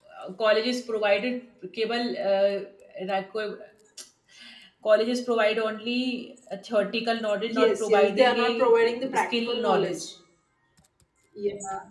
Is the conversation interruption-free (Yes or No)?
No